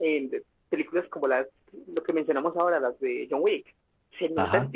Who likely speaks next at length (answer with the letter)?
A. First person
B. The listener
B